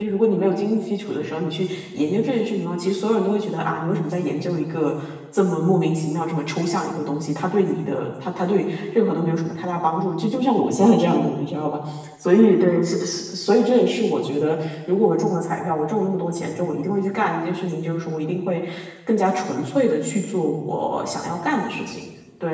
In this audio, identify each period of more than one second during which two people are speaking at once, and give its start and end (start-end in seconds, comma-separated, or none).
none